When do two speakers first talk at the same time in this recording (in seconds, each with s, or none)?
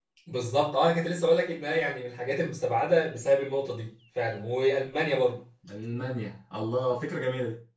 none